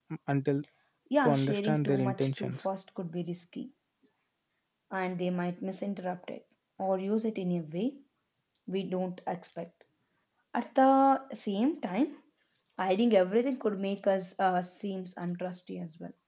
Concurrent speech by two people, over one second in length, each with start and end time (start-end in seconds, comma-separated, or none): 1.2-2.6